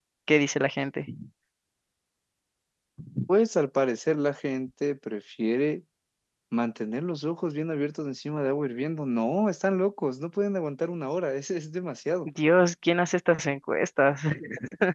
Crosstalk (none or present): none